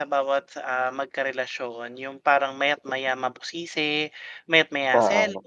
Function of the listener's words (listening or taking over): listening